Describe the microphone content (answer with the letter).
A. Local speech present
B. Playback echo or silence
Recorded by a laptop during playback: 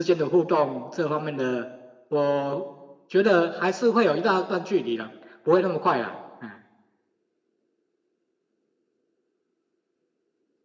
B